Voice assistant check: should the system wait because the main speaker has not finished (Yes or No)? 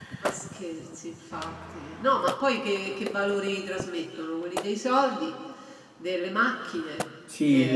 No